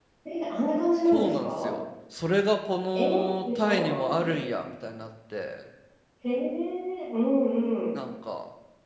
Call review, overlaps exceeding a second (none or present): present